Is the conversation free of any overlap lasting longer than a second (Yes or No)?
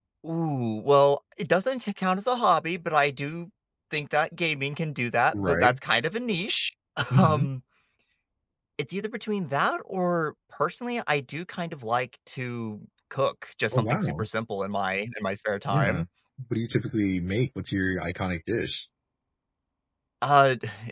Yes